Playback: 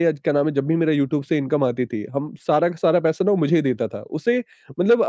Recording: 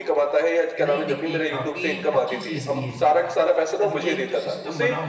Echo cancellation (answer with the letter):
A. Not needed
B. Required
B